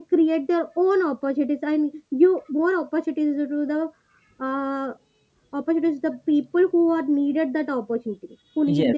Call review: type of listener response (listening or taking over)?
taking over